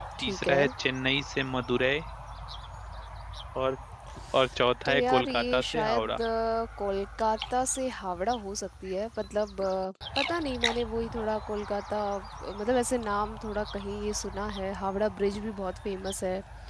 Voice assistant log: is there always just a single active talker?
No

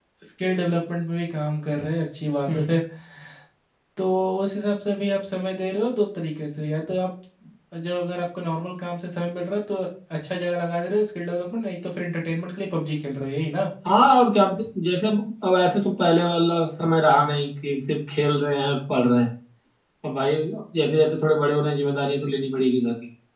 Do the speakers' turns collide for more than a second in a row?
No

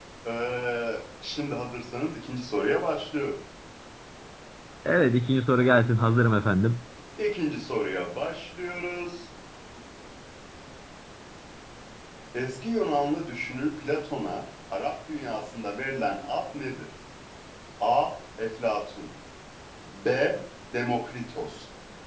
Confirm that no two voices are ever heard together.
Yes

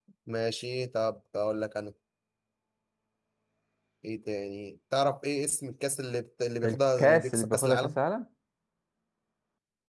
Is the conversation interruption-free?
No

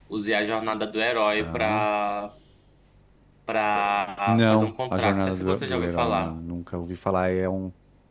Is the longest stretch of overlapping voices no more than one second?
No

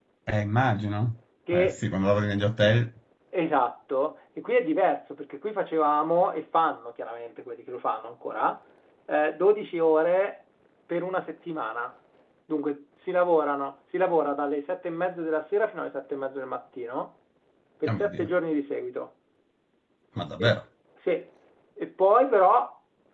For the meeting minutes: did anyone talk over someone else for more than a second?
No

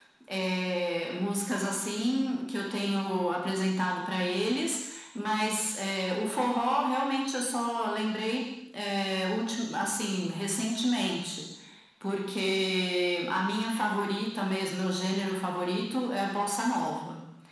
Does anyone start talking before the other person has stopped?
No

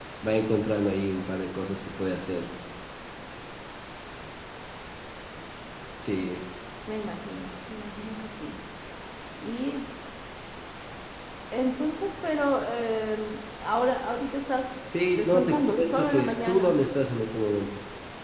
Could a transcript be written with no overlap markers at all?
No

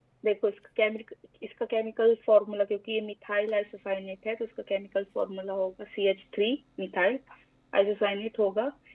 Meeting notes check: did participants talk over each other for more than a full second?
No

